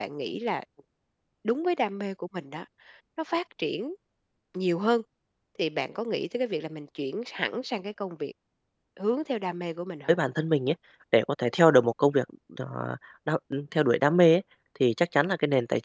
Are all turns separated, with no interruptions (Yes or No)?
Yes